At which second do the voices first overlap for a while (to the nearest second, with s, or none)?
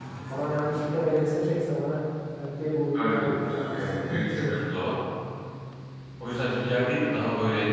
3 s